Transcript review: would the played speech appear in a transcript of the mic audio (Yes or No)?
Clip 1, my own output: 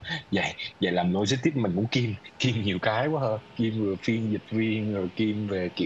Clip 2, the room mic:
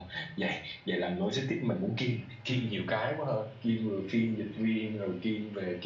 Yes